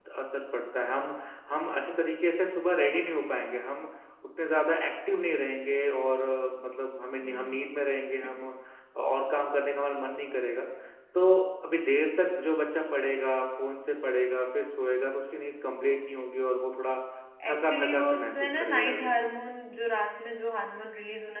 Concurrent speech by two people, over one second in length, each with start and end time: 17.5-19.3

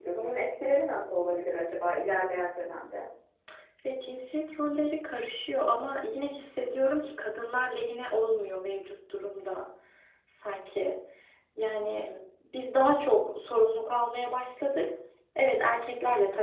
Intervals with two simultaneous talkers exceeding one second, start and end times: none

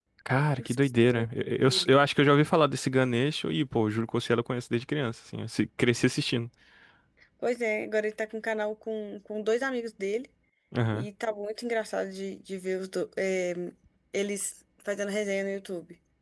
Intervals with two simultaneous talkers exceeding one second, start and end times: 0.6-1.9

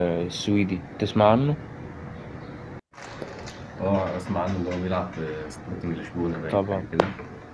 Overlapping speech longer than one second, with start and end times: none

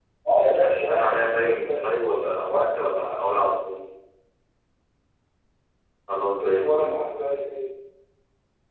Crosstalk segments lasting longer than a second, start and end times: 0.6-1.9

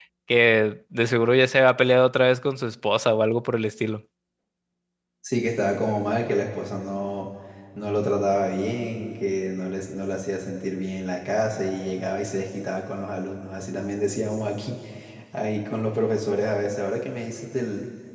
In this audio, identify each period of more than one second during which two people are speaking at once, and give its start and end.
none

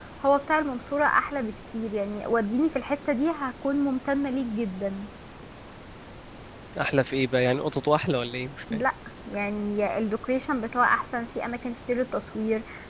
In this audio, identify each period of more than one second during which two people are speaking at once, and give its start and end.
none

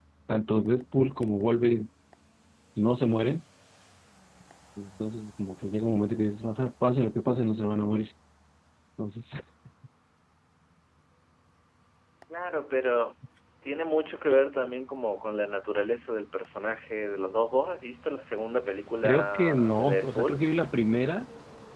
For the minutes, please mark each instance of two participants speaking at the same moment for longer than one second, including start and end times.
19.0-20.4

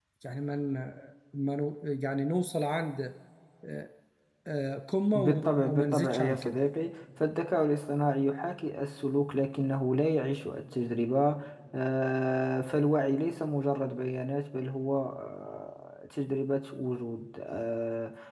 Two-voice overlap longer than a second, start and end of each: 5.1-6.6

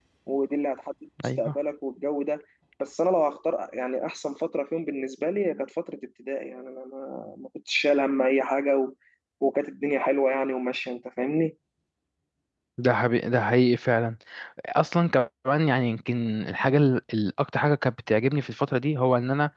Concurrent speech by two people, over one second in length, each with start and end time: none

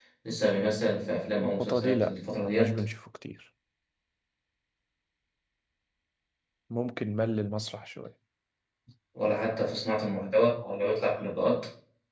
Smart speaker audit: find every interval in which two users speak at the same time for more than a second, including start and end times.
1.4-2.8

